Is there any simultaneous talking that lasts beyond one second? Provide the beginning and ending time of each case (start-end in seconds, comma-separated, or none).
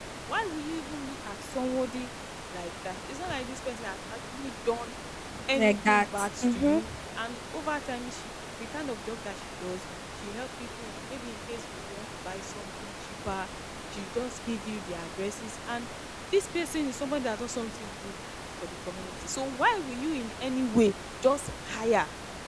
5.5-6.9